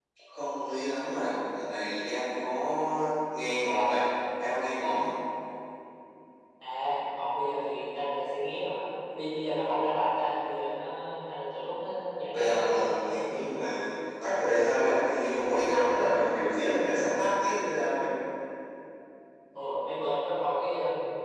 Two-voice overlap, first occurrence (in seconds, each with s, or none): 12.3 s